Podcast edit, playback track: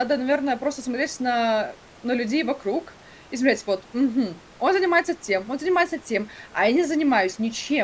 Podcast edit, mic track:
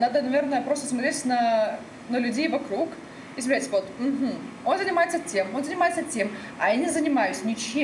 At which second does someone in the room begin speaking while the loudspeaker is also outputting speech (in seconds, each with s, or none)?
none